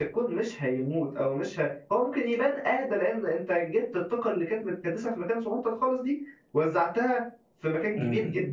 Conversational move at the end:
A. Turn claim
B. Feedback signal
A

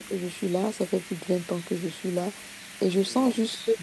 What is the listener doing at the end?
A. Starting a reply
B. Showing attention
B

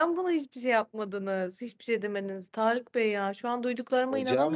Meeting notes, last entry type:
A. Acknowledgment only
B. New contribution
A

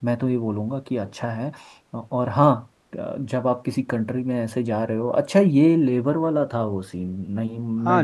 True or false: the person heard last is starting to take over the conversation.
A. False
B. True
B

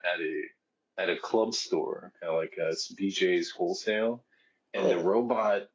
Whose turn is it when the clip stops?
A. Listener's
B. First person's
B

